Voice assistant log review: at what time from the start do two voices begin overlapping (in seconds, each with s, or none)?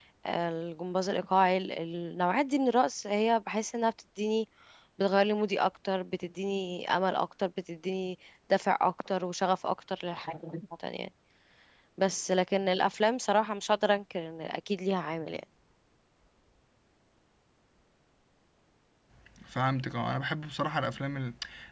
none